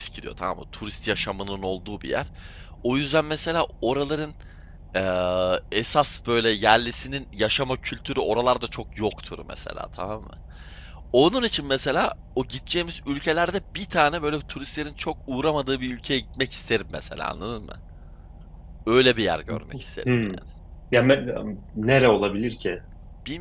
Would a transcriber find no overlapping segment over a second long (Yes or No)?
Yes